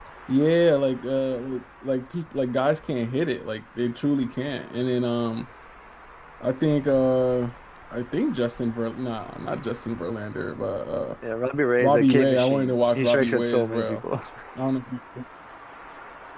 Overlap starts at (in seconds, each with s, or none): 11.8 s